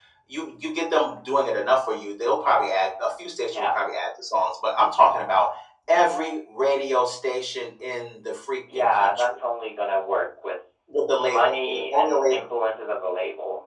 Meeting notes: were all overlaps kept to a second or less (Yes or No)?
No